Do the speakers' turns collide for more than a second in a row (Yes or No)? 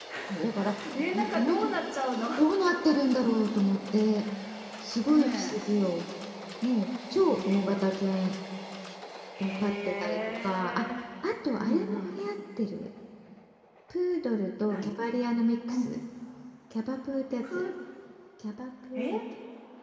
Yes